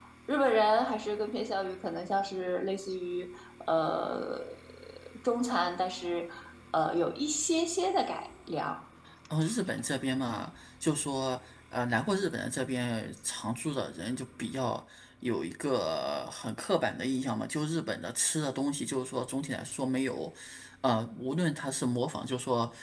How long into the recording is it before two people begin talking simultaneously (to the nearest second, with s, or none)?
none